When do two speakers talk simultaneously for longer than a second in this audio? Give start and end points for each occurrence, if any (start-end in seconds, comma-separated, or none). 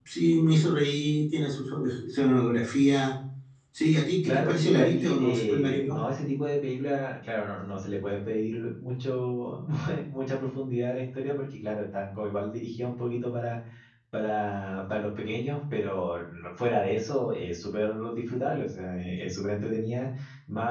4.2-6.0